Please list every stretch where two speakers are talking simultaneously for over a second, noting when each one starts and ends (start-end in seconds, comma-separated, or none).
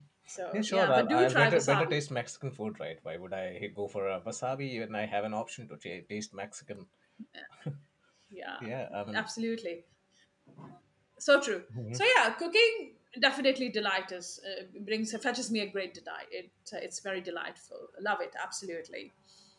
0.5-1.9